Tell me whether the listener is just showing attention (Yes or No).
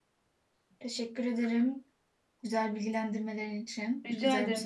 No